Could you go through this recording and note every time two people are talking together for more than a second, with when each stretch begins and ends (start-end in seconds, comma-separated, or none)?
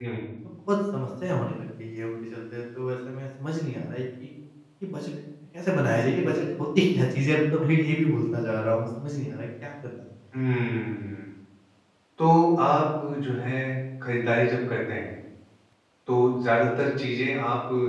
none